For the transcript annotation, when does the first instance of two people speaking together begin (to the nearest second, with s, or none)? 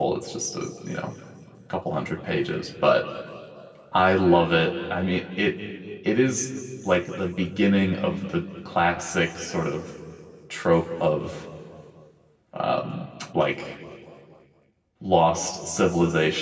none